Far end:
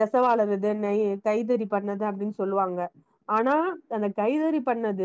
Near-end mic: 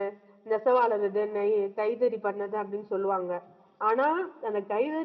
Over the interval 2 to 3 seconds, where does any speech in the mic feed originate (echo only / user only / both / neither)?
echo only